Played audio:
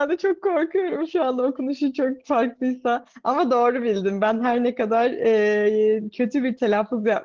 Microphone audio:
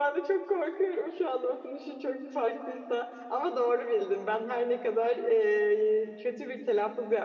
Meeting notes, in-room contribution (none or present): none